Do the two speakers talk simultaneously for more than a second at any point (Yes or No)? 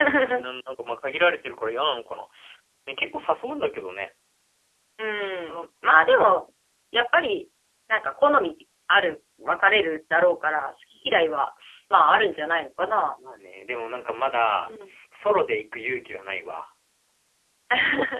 No